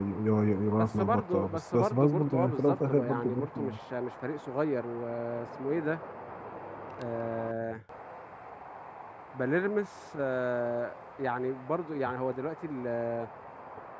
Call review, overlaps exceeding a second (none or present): present